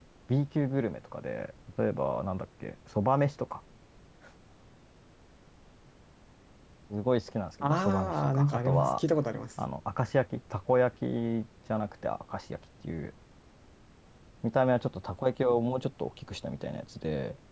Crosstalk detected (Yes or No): Yes